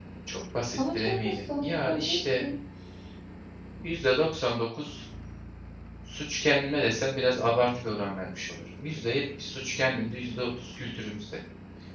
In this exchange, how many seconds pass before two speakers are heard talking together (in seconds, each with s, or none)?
0.9 s